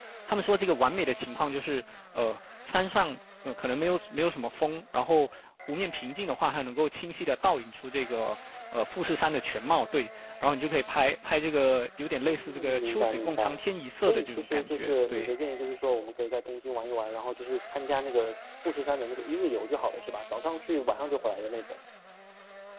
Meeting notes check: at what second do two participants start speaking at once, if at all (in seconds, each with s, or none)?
12.2 s